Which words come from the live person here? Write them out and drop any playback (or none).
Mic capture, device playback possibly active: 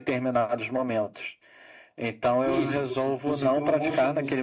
none